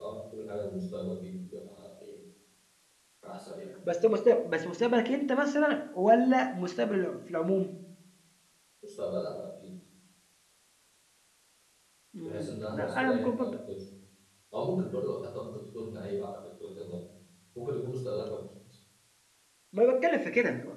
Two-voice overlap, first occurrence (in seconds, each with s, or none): 12.2 s